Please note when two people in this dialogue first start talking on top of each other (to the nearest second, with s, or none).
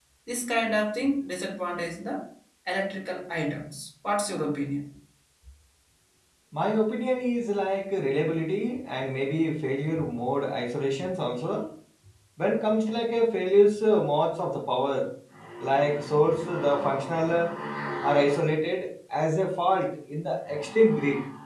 none